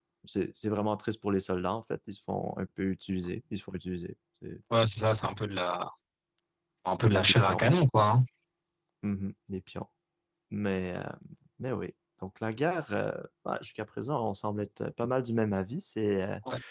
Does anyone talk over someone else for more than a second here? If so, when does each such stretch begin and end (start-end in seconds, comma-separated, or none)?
none